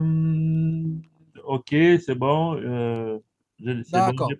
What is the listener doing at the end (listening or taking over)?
taking over